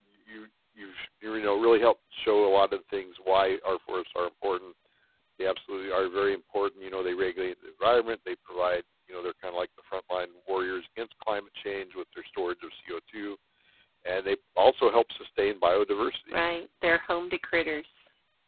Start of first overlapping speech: none

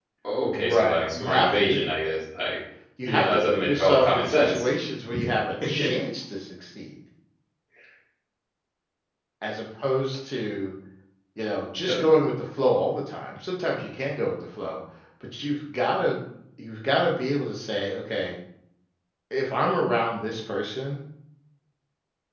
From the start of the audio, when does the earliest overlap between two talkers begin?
0.5 s

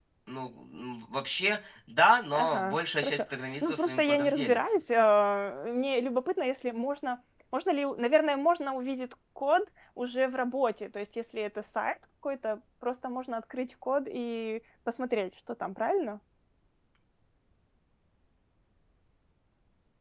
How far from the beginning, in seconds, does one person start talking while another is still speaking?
2.3 s

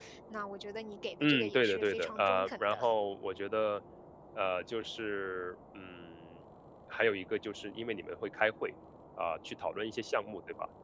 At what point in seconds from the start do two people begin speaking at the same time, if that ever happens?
1.2 s

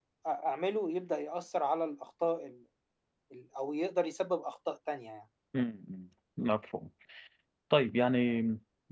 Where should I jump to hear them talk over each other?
none

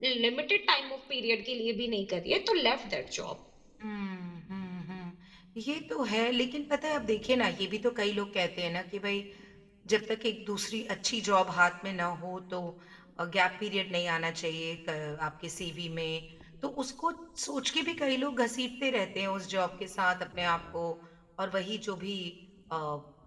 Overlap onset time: none

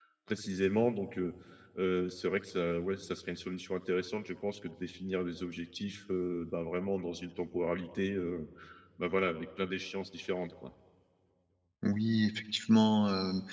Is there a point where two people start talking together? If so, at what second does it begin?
none

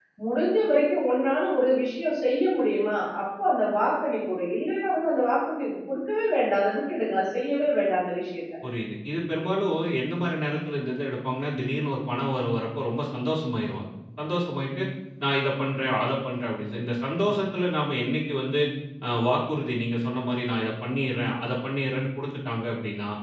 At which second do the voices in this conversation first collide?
none

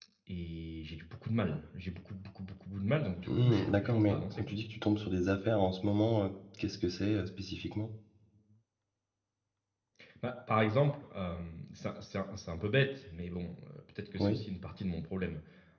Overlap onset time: 3.2 s

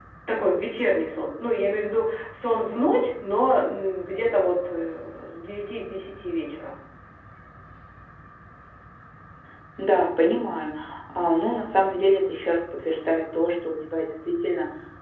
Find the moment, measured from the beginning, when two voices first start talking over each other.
none

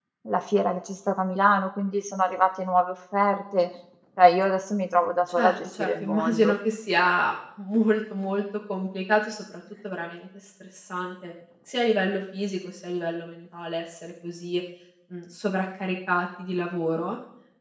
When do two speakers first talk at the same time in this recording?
5.3 s

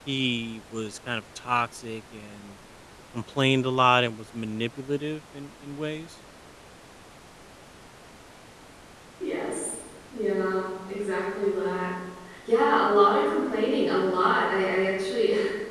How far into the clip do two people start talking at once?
none

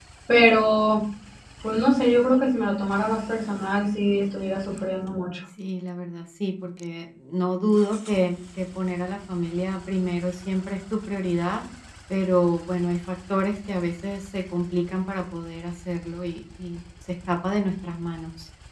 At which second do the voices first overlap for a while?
none

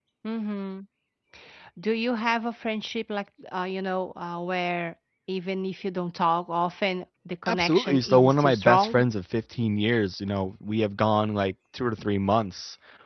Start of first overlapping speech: 7.5 s

